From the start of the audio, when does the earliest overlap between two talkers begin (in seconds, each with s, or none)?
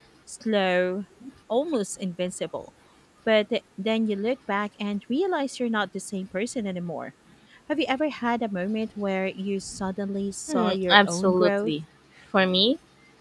10.5 s